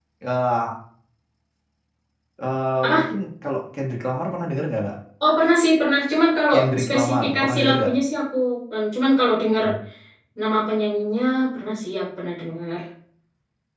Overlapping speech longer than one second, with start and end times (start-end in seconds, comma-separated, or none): 6.5-7.9